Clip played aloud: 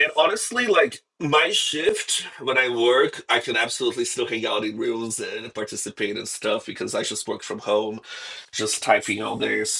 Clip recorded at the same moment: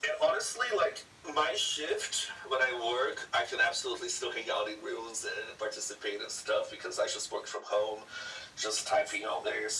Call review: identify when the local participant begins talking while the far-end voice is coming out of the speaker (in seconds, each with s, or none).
none